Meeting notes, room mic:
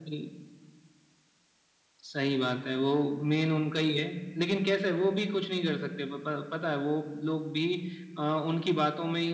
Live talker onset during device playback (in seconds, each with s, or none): none